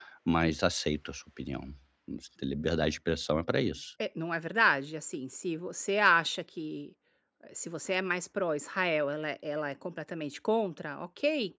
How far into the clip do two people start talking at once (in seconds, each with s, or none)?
none